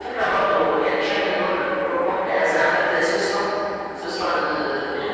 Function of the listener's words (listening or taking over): listening